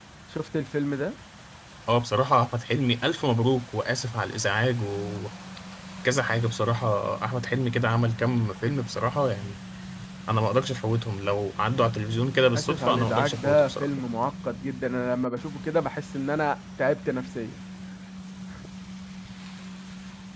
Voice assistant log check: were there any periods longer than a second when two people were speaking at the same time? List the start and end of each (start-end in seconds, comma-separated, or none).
12.5-13.9